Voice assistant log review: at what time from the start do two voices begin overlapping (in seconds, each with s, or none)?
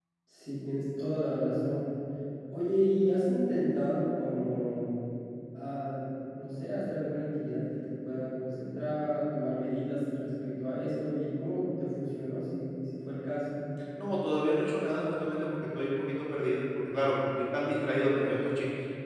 none